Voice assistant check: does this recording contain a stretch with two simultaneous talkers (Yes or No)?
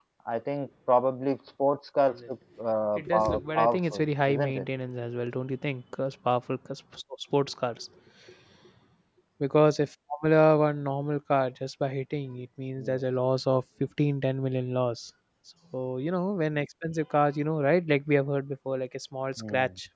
Yes